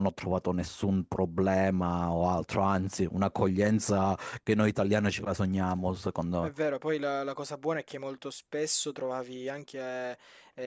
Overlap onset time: none

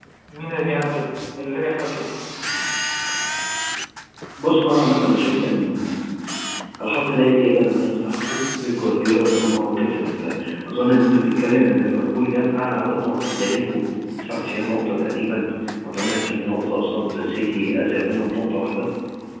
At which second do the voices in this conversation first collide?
none

